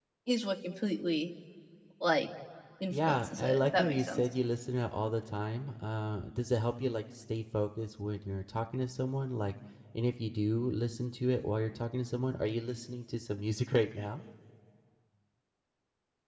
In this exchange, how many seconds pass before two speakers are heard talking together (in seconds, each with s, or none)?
2.9 s